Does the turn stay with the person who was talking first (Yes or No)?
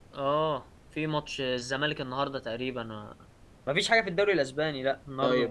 No